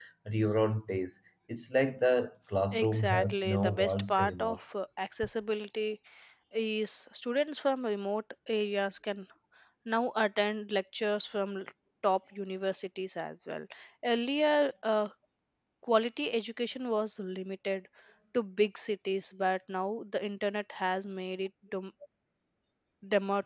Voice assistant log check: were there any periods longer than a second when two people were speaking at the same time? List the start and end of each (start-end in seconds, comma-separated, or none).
2.7-4.6